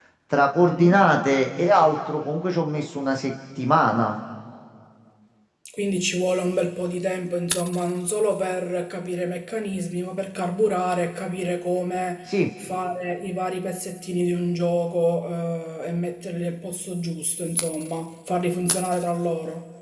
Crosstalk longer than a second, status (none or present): none